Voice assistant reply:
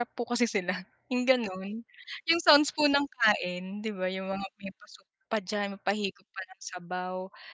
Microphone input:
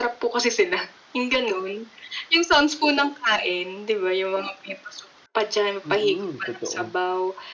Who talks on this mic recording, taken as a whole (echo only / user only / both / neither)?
both